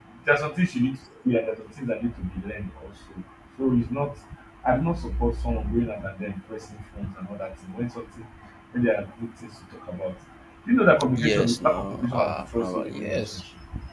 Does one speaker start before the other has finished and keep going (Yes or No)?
Yes